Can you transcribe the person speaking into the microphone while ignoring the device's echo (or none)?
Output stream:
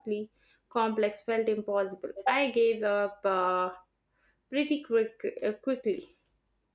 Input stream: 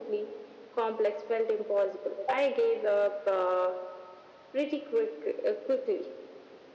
none